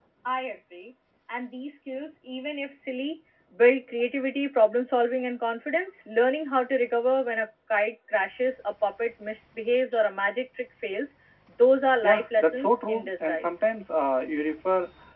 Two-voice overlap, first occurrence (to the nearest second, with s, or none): 12 s